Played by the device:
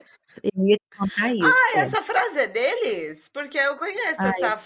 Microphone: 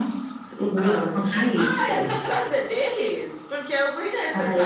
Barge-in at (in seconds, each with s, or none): 0.7 s